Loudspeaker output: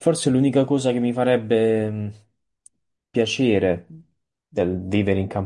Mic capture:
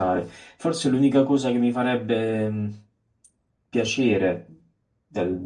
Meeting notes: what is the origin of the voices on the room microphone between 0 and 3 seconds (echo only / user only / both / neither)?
echo only